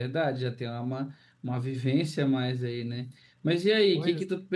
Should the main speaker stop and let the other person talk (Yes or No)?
No